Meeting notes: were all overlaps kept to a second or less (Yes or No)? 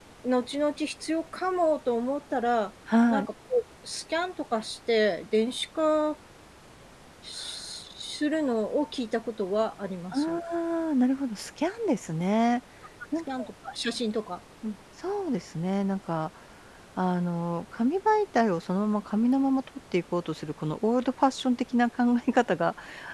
Yes